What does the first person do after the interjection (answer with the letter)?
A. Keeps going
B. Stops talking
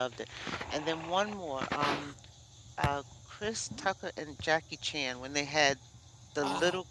A